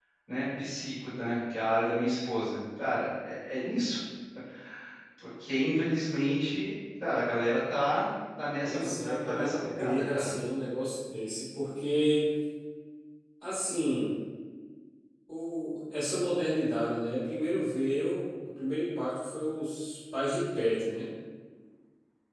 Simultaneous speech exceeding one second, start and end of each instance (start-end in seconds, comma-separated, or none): 8.6-10.3